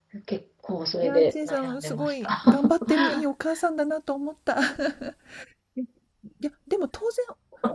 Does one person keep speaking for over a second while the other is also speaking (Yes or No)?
Yes